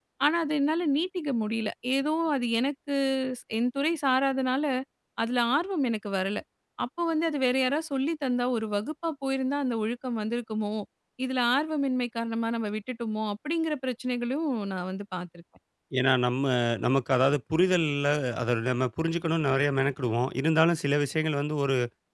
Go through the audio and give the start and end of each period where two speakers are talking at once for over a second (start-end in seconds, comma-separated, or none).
none